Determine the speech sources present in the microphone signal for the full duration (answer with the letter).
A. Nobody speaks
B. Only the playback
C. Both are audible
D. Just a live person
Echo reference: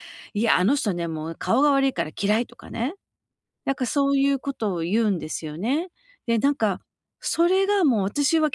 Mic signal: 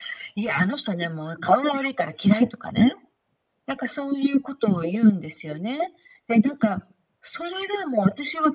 B